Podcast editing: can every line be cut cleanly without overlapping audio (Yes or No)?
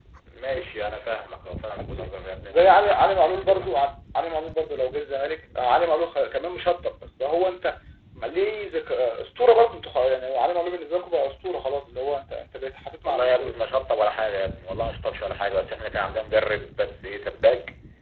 No